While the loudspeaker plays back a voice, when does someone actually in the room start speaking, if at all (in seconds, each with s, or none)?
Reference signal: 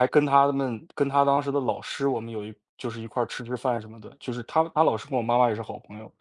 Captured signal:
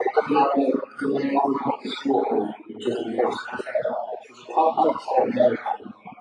none